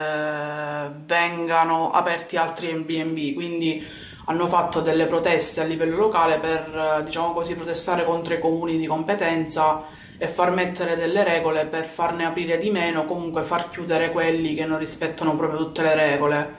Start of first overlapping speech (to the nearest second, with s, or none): none